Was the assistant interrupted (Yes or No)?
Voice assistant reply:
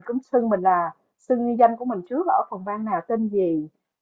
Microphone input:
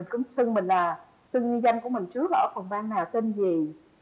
No